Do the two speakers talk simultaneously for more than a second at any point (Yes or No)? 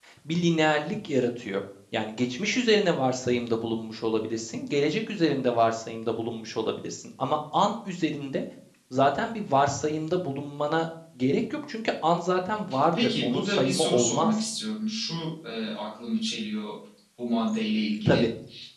Yes